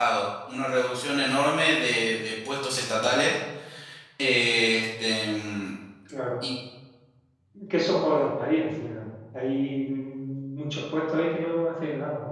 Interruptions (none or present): none